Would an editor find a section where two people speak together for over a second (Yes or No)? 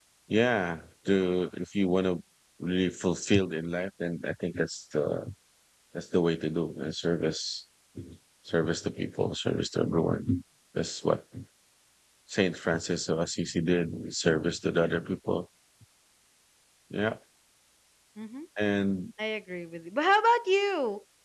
No